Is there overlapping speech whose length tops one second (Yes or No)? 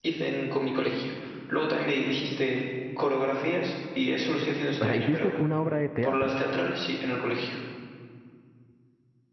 No